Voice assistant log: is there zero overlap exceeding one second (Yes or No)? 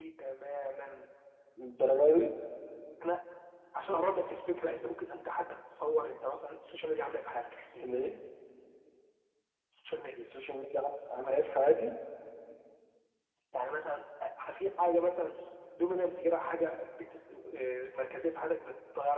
Yes